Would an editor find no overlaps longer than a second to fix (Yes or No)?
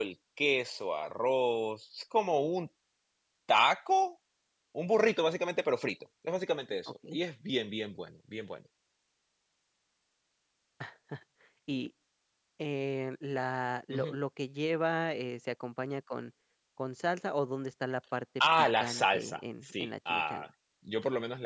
No